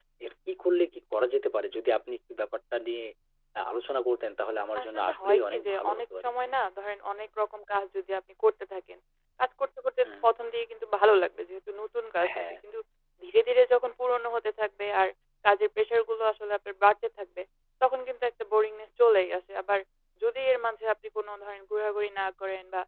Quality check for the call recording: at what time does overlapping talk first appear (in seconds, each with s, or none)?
4.8 s